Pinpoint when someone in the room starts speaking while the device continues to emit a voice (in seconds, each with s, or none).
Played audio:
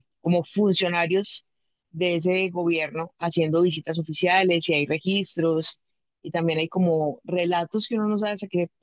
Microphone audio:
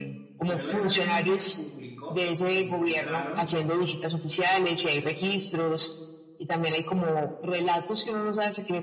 0.5 s